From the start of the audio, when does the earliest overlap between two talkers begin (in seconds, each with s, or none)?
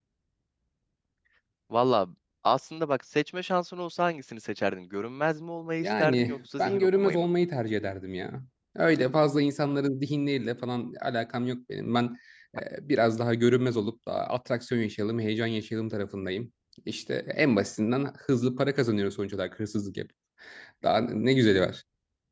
5.8 s